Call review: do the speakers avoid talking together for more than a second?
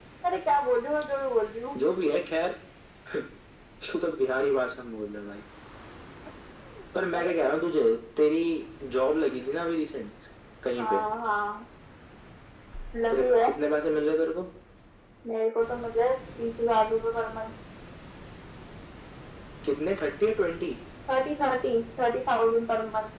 Yes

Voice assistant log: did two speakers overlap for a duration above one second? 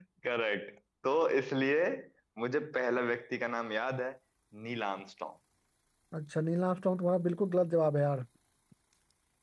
No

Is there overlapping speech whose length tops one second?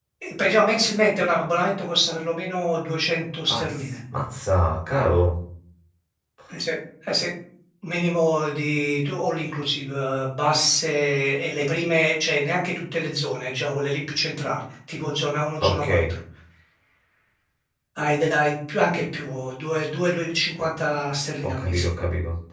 No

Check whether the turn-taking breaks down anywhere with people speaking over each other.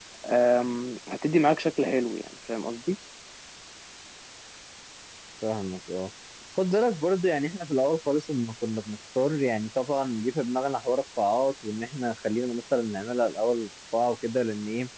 No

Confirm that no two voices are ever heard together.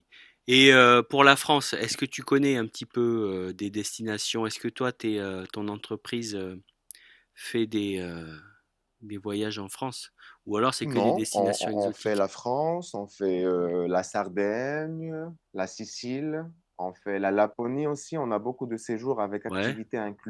No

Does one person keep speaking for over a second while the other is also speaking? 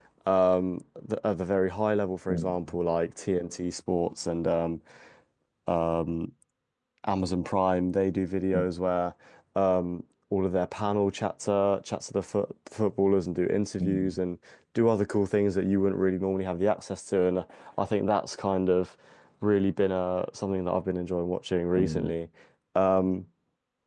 No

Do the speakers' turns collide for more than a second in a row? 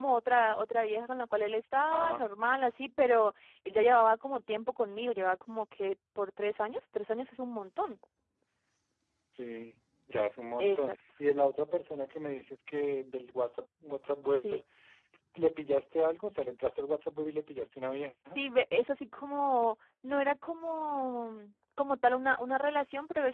No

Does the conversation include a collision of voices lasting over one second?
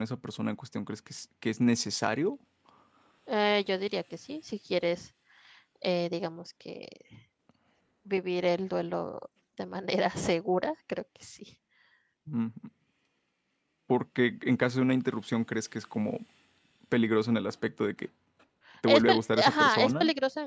Yes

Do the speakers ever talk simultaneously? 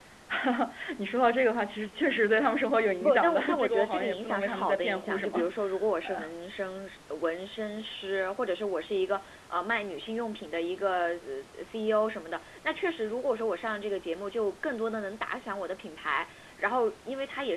Yes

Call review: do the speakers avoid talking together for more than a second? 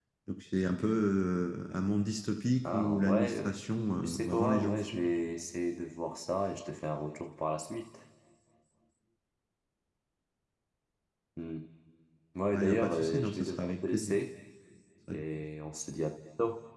No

